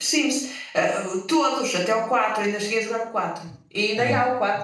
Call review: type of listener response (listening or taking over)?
listening